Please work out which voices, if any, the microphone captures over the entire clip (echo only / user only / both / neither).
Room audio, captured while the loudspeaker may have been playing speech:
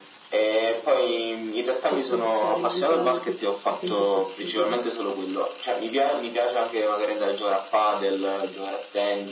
both